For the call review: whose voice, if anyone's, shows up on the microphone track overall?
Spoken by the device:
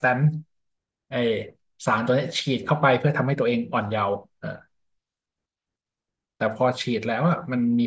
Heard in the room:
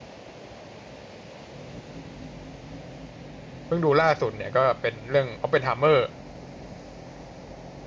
user only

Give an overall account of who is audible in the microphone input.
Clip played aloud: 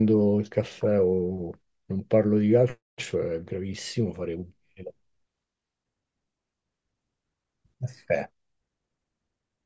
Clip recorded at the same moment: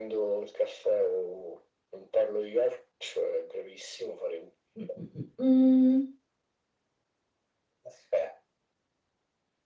both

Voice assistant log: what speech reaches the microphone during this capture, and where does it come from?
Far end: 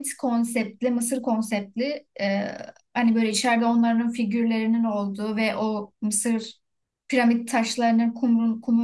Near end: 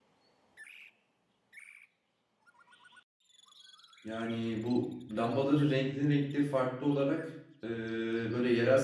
user only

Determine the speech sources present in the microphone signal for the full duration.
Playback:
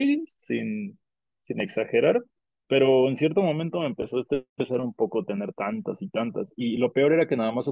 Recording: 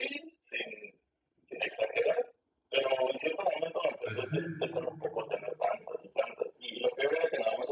both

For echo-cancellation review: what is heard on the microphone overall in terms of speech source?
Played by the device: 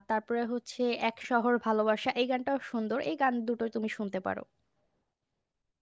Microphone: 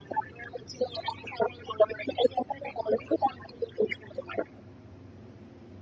echo only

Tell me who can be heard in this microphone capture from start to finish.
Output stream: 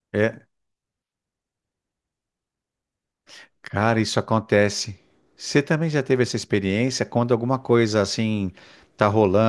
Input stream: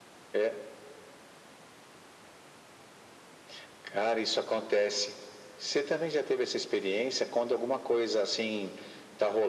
echo only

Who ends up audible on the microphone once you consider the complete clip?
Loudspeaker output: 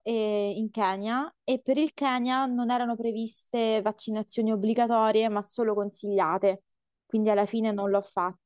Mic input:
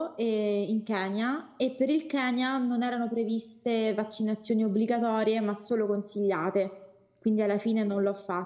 echo only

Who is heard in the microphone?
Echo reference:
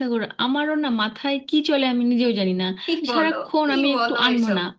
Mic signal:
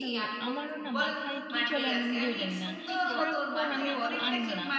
both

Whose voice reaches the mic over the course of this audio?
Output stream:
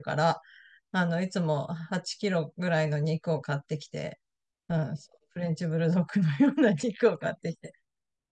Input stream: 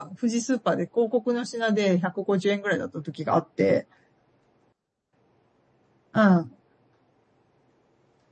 user only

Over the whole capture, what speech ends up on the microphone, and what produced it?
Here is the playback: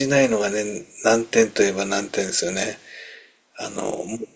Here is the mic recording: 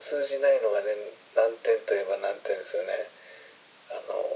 echo only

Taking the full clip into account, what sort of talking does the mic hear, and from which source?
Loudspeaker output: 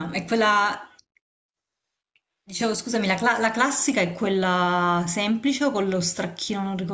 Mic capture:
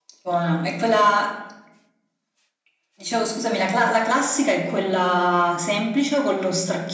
echo only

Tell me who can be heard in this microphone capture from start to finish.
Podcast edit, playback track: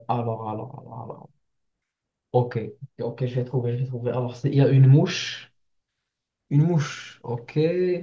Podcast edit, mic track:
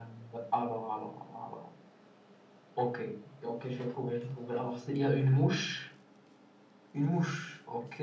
echo only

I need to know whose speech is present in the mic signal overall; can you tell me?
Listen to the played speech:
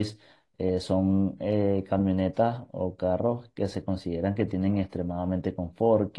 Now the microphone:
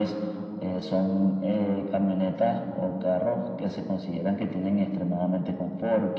echo only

